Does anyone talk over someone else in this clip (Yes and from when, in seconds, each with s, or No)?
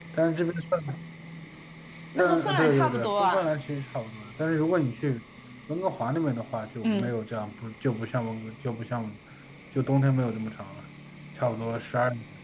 Yes, from 2.2 s